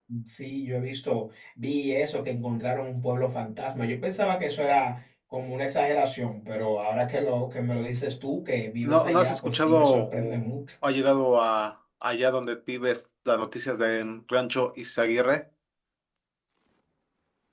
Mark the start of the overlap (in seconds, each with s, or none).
8.8 s